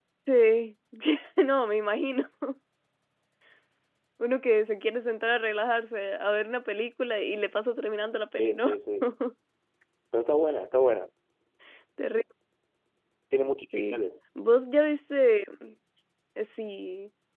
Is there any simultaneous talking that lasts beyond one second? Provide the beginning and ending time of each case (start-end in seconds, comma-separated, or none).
none